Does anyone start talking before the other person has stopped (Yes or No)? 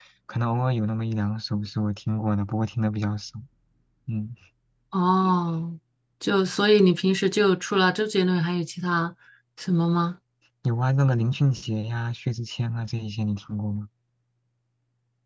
No